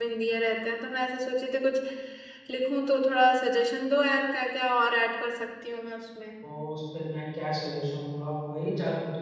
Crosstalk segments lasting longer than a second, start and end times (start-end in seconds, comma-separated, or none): none